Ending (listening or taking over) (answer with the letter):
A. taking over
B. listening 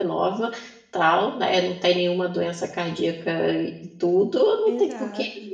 B